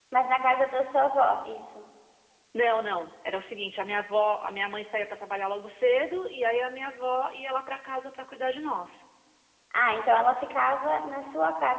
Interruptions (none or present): none